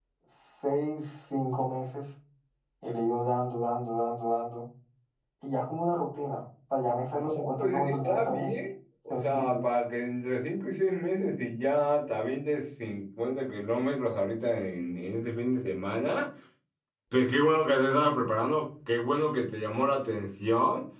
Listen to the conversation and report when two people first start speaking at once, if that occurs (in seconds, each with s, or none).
7.2 s